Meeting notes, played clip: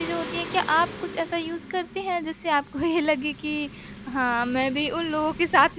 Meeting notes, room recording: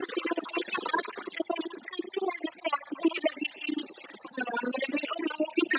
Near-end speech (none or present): none